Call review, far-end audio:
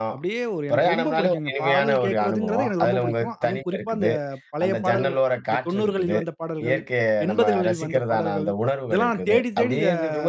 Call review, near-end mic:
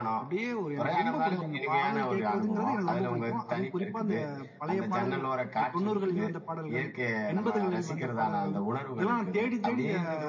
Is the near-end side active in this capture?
No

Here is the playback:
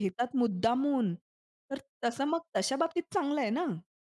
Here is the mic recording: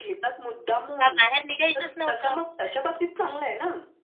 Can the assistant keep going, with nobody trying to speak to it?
No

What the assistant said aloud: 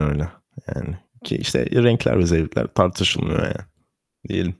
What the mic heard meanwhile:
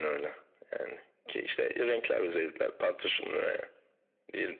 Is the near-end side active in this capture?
No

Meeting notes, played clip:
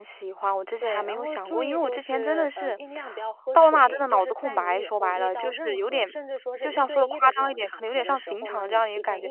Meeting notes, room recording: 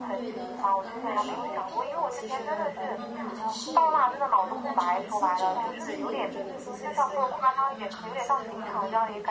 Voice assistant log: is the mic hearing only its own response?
No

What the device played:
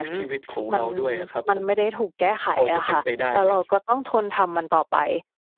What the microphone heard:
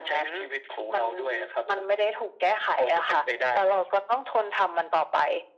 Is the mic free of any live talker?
Yes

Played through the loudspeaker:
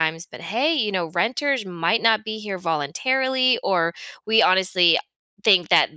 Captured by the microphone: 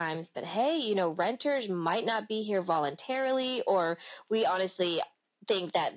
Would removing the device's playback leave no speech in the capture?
Yes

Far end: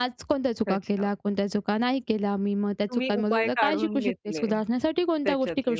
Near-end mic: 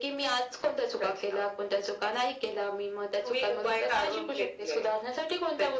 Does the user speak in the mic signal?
No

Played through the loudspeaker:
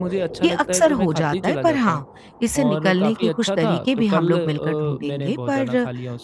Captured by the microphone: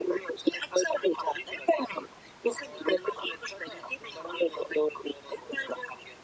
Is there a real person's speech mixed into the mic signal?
No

